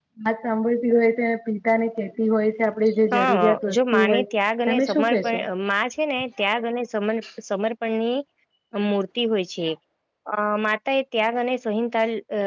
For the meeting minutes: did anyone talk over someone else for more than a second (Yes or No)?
Yes